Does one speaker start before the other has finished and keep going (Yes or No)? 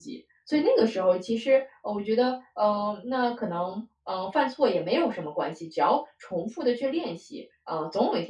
No